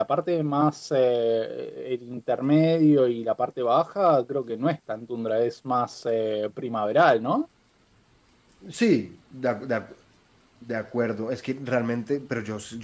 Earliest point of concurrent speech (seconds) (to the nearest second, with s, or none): none